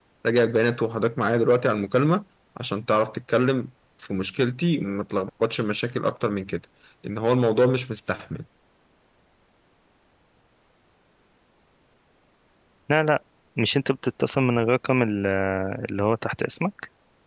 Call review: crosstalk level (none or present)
none